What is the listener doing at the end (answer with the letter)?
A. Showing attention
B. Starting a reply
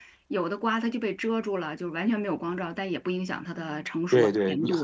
B